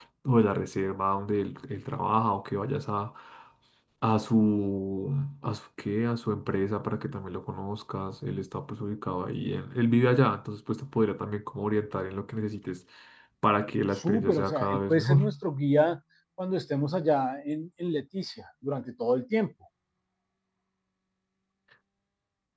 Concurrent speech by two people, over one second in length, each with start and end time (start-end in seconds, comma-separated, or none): 14.0-15.2